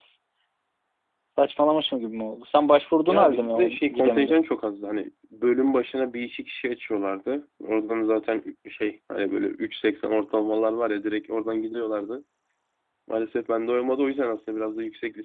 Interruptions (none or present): present